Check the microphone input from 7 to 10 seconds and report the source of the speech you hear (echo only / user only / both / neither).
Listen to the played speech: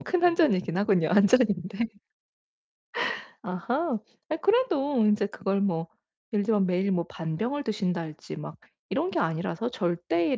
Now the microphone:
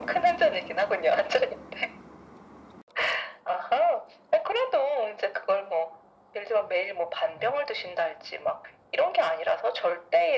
echo only